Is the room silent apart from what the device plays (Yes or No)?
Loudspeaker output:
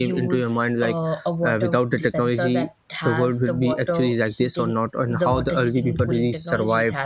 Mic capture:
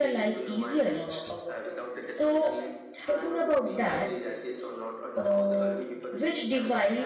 No